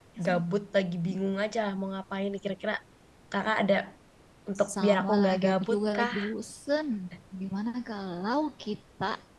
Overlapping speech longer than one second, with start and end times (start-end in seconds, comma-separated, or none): 4.8-6.1